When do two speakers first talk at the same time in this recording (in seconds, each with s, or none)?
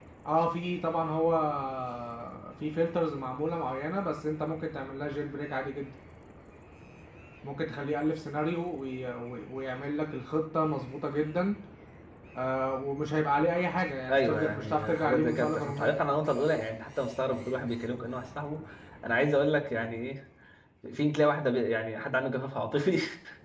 14.1 s